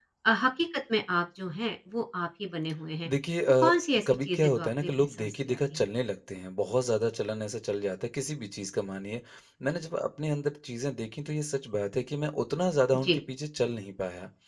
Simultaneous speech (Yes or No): Yes